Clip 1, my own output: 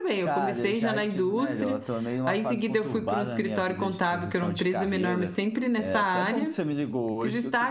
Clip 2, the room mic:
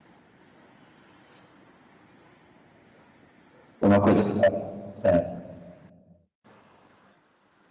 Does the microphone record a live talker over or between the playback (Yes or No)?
Yes